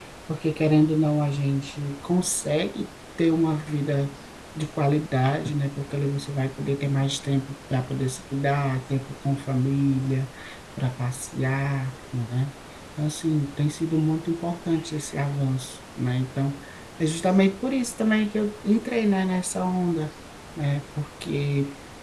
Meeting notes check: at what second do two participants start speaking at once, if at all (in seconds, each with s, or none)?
none